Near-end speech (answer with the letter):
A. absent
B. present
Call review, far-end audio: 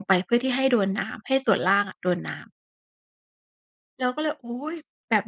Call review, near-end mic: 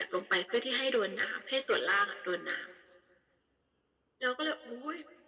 A